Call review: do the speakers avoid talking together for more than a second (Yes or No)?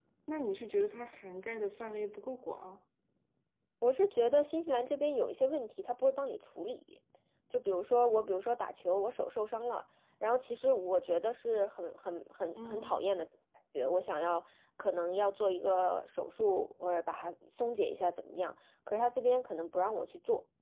Yes